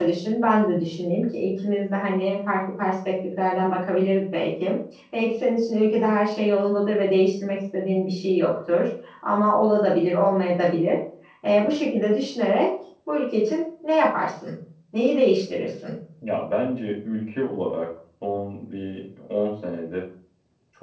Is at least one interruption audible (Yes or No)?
No